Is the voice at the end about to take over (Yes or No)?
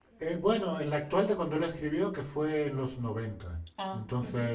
No